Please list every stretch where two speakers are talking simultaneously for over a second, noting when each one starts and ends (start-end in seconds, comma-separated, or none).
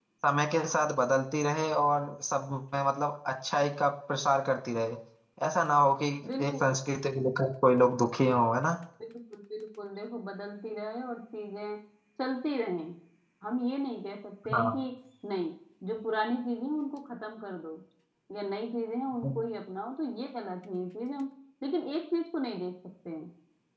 none